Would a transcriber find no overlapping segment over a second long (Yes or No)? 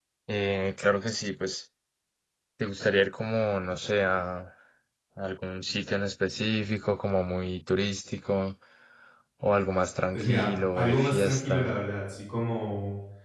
No